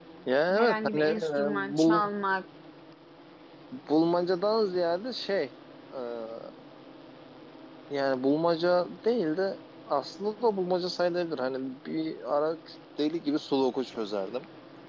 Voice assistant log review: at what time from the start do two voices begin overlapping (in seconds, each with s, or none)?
0.5 s